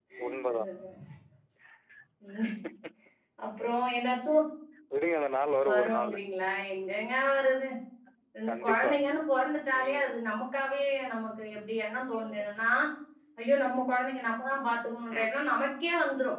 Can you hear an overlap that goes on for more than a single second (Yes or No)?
No